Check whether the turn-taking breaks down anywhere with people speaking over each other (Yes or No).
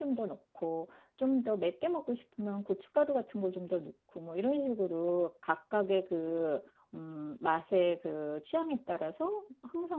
No